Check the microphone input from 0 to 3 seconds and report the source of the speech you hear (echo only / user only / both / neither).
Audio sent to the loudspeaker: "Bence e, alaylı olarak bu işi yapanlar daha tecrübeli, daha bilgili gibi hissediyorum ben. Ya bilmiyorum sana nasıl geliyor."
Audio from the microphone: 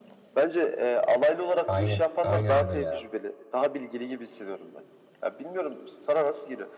both